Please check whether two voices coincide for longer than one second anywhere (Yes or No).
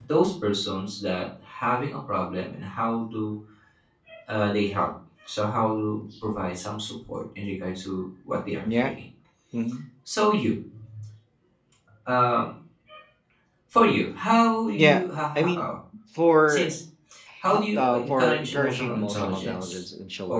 Yes